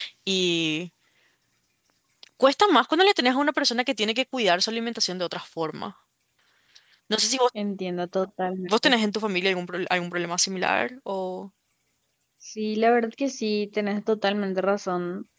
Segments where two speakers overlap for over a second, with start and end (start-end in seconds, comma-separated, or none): none